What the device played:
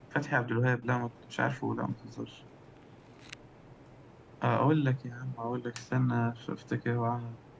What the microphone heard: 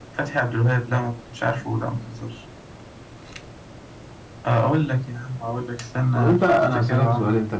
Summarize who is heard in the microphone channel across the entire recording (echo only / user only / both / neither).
both